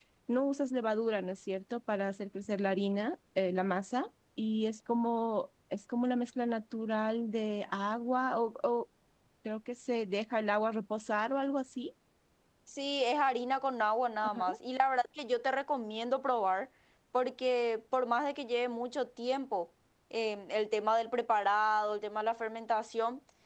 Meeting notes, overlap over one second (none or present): none